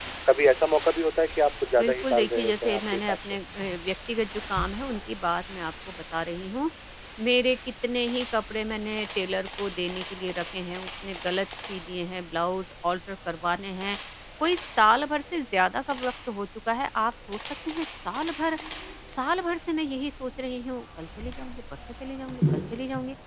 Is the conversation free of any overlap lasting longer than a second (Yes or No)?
No